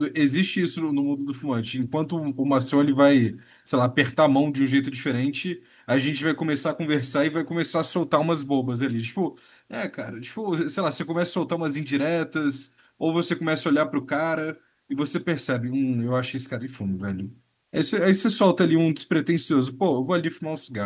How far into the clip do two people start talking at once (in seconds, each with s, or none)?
none